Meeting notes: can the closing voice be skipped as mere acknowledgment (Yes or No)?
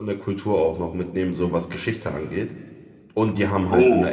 Yes